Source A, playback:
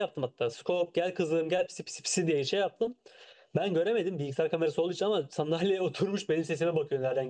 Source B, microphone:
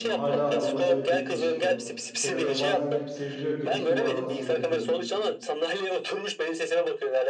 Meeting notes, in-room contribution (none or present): present